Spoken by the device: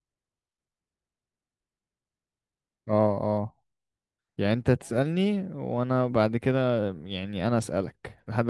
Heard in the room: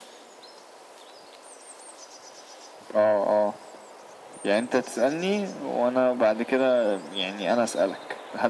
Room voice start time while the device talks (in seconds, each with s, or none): none